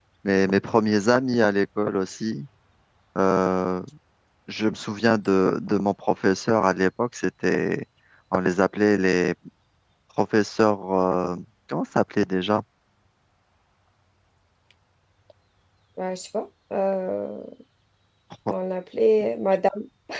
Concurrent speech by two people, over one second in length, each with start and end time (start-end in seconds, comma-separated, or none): none